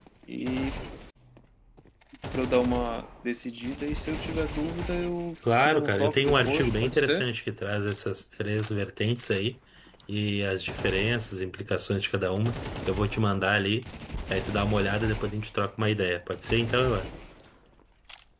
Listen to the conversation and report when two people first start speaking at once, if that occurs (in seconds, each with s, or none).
5.4 s